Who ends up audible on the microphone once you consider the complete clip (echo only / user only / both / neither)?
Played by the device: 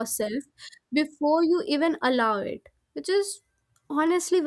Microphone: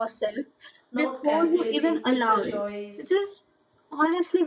both